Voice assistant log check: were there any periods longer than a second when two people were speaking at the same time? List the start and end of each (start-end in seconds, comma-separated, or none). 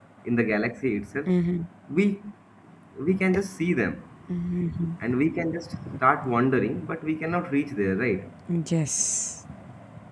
none